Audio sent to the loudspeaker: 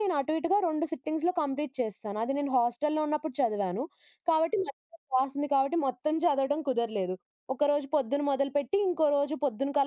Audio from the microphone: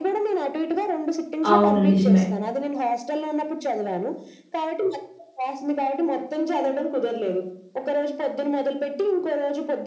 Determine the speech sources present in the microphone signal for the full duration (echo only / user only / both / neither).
both